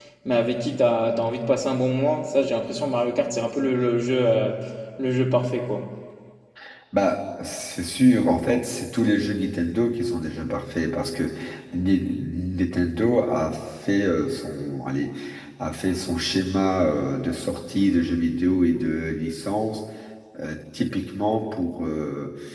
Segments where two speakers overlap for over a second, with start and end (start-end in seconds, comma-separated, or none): none